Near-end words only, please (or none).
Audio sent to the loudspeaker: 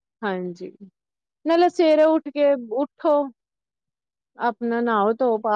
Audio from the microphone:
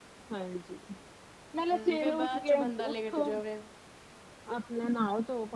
ਹਮ ਫੇਰ ਬਾਅਦ ਚੋਂ ਬੰਦਾ ਲੇਟ ਜਾਵੇ